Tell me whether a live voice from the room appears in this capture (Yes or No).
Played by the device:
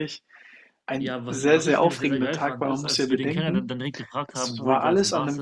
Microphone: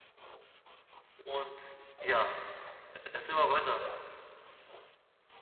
Yes